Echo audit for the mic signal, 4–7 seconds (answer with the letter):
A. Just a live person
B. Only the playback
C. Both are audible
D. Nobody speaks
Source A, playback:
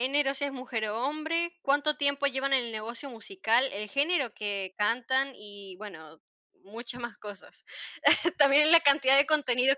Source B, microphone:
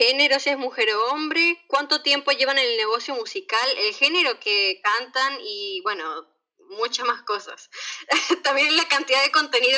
B